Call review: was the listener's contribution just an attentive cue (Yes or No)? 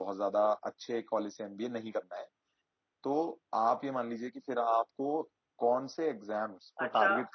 No